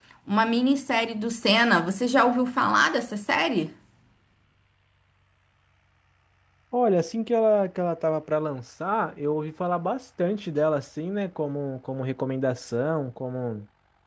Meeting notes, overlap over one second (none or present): none